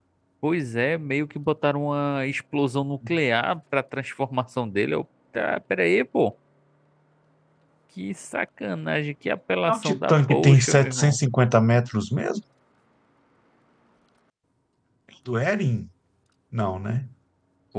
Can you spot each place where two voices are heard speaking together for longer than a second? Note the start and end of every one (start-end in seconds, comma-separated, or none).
9.7-11.2